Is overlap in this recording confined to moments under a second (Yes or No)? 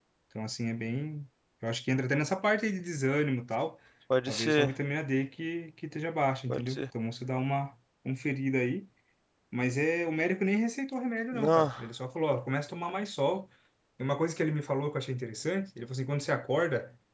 Yes